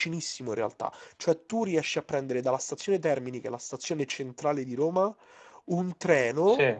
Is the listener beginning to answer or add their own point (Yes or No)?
No